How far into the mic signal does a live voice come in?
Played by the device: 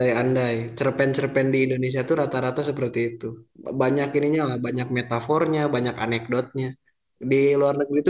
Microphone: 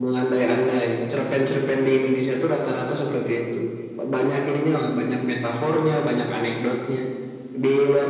none

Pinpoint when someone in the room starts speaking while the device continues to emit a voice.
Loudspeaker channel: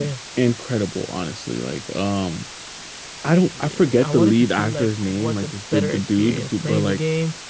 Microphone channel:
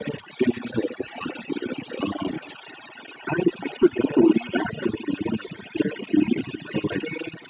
none

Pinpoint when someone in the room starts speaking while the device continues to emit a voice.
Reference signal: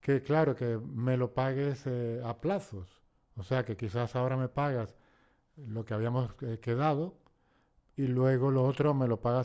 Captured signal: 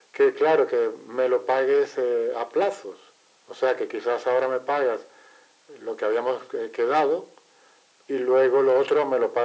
none

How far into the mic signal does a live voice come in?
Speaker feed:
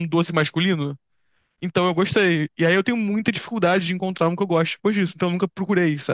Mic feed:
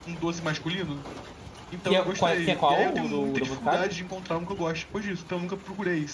1.8 s

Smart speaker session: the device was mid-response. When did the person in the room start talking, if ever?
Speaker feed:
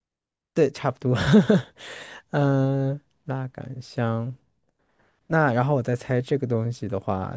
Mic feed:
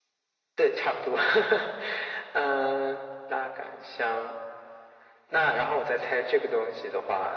none

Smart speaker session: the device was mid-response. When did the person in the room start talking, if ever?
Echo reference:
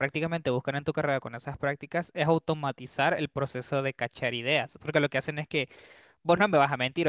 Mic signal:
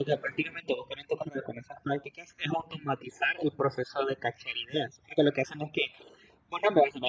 none

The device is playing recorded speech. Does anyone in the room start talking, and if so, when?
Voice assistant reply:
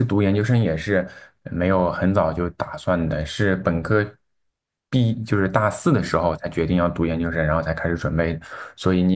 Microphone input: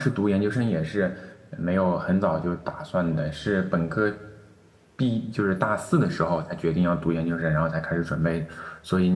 none

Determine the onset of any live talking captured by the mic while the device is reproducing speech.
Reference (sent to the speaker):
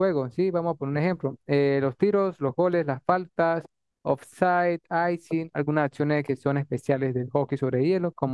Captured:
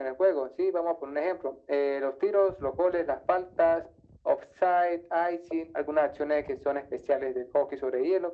none

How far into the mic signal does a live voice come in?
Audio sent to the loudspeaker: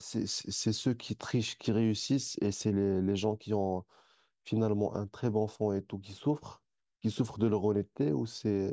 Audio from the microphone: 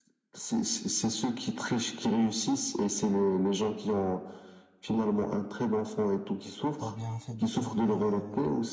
6.8 s

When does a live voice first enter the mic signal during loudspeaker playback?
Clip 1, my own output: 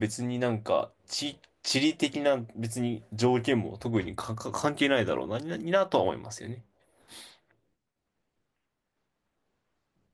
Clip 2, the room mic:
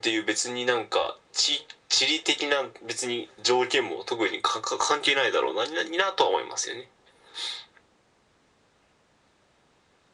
none

